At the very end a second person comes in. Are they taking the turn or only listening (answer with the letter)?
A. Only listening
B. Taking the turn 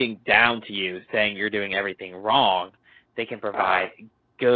A